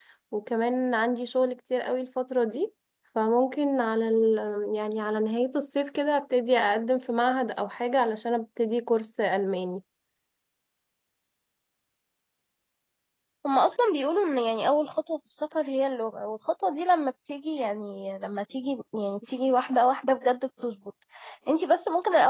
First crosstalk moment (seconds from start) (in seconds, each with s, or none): none